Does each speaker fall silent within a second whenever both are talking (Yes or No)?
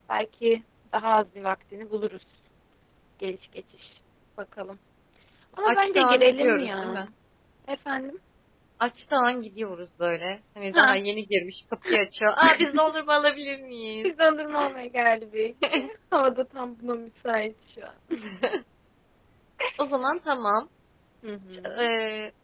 No